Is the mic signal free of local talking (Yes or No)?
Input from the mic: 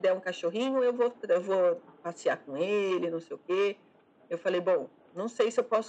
Yes